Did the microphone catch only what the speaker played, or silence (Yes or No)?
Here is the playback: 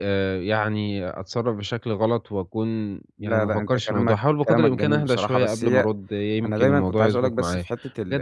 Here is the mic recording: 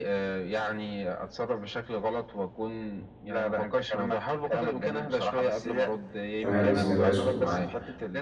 No